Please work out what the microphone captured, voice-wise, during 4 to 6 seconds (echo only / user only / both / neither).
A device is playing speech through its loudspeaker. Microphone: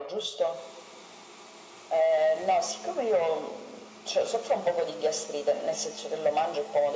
echo only